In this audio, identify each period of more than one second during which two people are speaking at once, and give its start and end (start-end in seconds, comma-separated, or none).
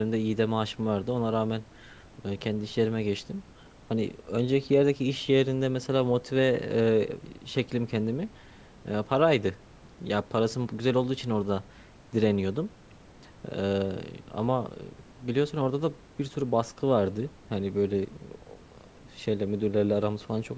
none